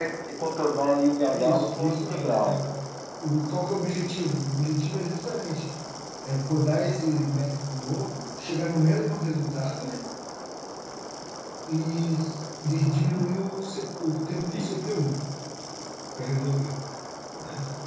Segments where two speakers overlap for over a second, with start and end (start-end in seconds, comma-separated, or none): 1.3-2.5